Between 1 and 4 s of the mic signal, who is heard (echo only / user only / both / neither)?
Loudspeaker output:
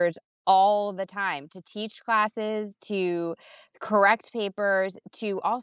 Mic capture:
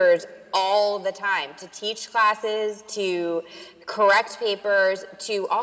echo only